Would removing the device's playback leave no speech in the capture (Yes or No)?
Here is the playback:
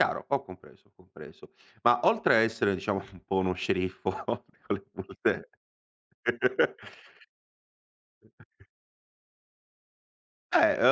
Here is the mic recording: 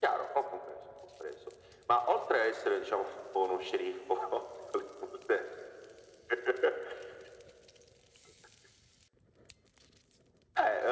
Yes